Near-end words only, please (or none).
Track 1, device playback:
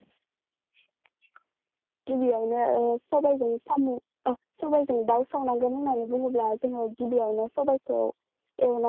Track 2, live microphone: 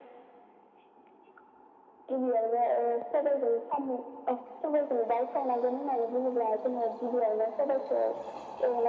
none